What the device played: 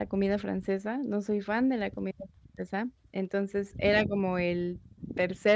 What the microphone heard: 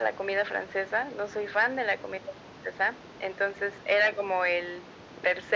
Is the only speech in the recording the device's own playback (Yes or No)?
Yes